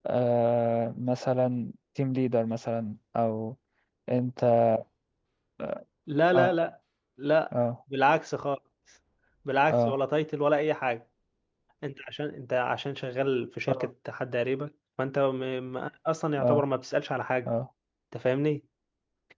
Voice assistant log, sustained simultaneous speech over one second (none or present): none